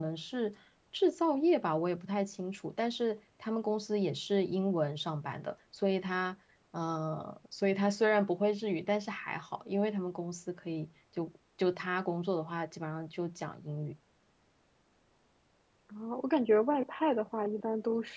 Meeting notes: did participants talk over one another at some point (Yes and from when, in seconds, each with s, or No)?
No